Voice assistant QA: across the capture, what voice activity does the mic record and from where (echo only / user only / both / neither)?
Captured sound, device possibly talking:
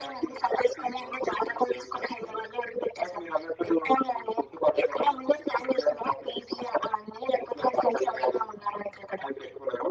echo only